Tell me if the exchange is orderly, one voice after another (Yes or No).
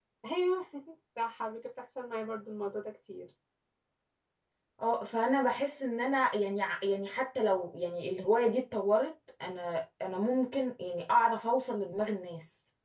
Yes